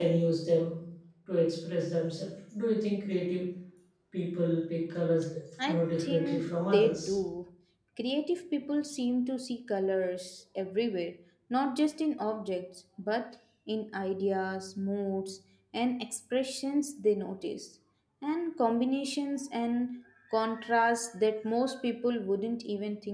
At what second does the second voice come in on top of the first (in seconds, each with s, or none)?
5.6 s